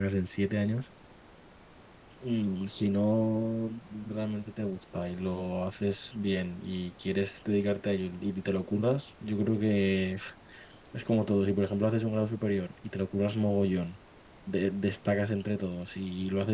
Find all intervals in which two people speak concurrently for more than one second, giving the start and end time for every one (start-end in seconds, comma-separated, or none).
none